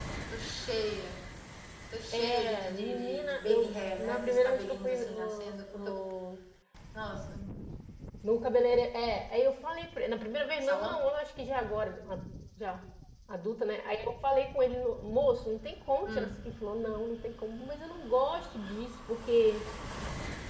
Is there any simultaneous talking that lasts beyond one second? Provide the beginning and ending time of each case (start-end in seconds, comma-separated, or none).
2.1-6.0